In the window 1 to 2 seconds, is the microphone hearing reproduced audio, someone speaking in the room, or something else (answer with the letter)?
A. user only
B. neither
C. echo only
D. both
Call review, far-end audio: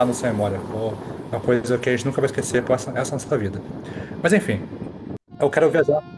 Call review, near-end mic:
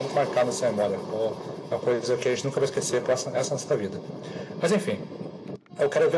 C